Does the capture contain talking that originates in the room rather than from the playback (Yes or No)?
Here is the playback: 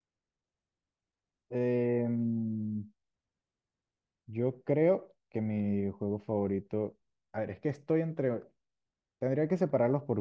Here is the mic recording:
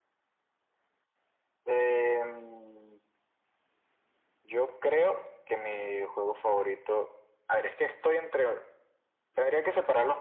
No